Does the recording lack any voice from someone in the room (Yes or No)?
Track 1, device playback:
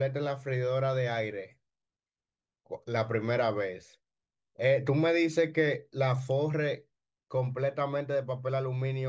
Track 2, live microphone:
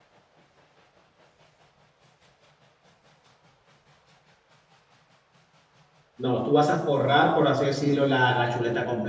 No